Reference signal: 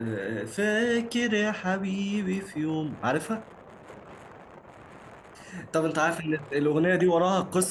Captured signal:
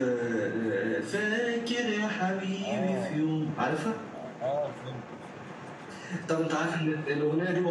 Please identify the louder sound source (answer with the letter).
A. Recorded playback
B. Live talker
A